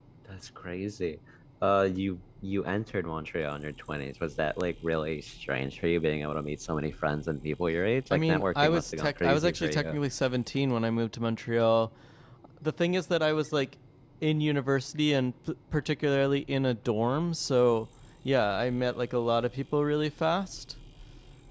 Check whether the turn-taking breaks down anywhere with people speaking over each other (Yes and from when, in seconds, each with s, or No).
Yes, from 8.1 s